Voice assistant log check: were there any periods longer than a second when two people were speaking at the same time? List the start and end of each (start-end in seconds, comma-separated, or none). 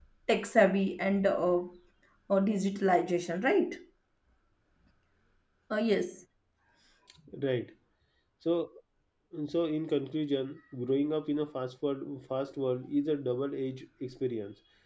none